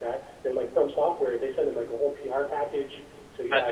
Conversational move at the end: listening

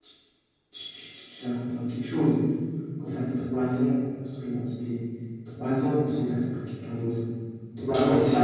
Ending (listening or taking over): listening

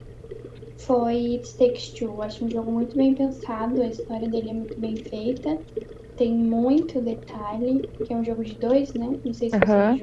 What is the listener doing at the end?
taking over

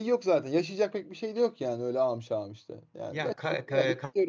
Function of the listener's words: taking over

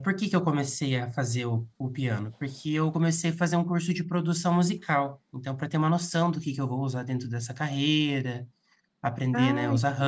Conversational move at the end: listening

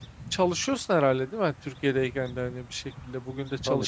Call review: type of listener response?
taking over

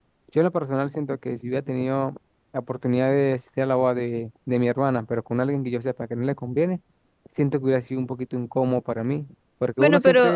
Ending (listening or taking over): taking over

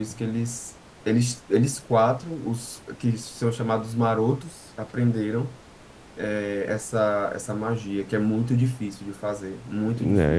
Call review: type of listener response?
taking over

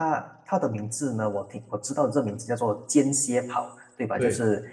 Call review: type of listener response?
listening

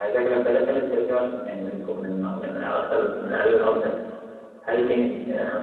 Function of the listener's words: listening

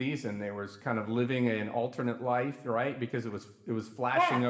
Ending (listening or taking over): listening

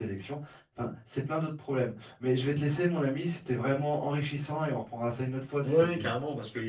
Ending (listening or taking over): taking over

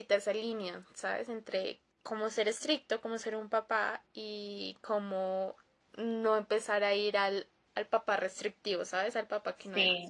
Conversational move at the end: taking over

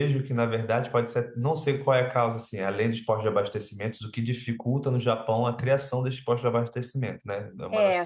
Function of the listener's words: taking over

